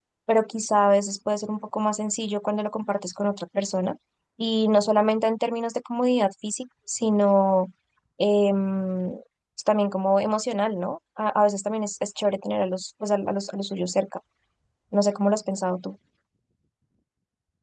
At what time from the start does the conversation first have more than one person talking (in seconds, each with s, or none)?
none